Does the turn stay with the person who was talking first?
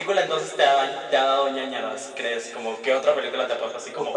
No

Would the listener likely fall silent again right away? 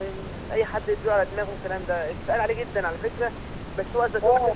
Yes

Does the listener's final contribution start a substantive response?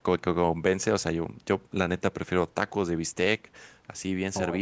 No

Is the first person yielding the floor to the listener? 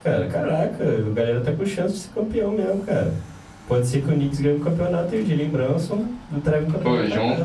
Yes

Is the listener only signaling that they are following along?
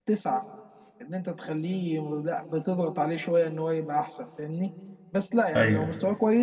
Yes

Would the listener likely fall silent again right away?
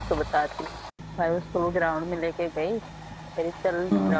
Yes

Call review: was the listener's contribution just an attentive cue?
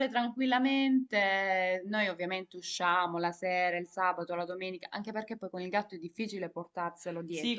No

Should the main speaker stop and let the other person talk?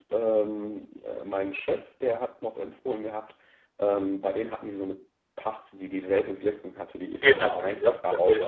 Yes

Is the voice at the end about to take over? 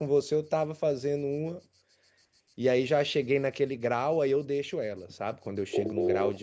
No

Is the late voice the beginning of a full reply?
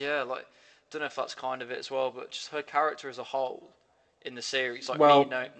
No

